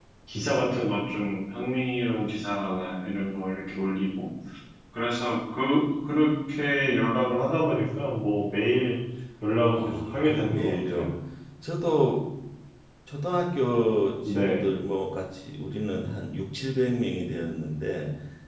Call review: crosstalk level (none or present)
present